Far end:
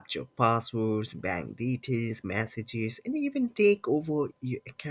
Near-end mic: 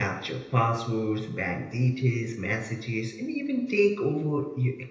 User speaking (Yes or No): No